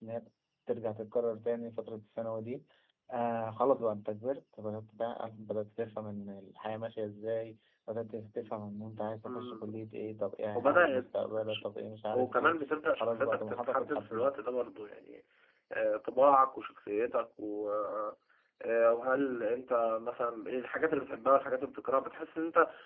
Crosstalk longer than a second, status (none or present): present